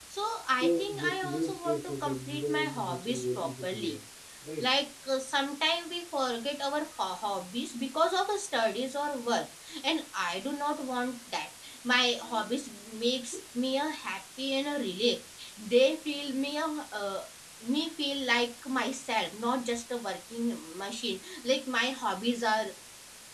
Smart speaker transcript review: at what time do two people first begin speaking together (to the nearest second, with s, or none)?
1 s